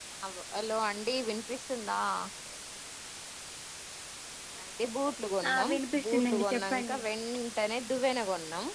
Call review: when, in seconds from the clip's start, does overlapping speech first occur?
5.5 s

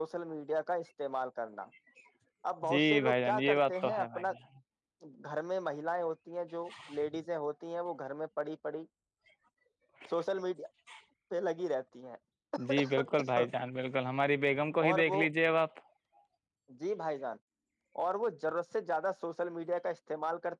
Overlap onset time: 2.7 s

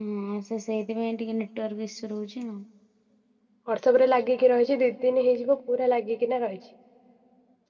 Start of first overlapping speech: none

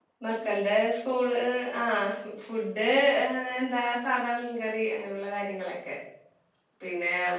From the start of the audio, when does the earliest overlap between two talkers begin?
none

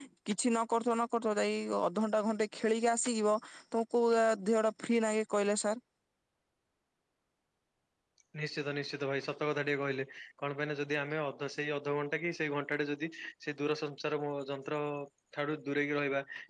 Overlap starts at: none

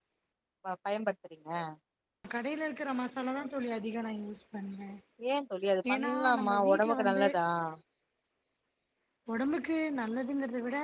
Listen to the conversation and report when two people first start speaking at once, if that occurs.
5.9 s

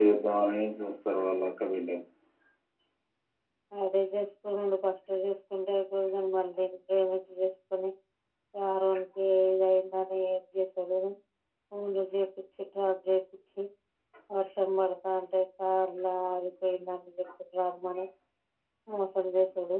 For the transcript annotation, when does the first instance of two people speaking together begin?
none

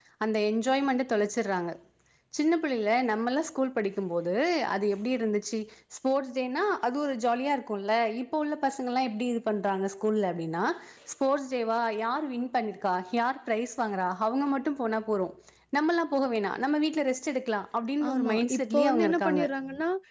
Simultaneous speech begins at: 18.0 s

